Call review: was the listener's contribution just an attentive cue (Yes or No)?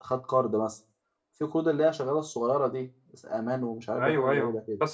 No